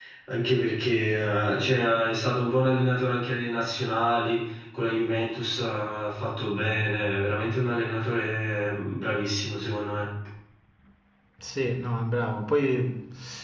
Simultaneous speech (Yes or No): No